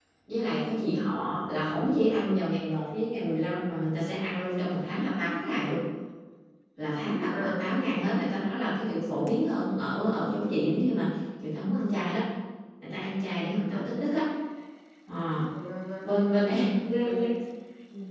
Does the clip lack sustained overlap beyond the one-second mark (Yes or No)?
Yes